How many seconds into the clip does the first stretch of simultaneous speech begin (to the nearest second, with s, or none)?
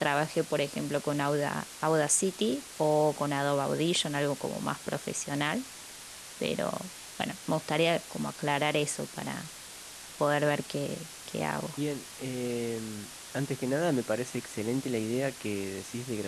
none